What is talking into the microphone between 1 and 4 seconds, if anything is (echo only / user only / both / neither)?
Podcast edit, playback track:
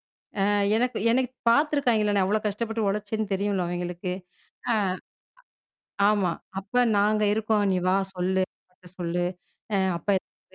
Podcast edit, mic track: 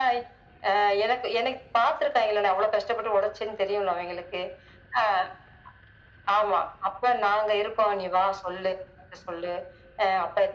echo only